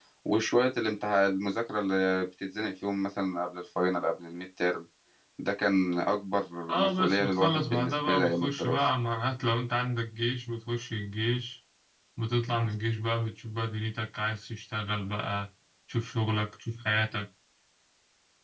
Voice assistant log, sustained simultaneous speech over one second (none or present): present